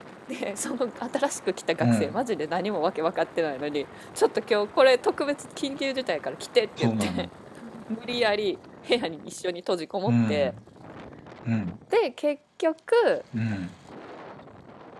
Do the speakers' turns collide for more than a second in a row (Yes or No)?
No